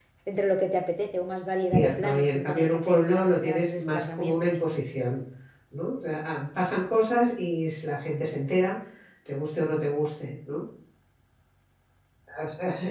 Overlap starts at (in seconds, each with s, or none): 1.7 s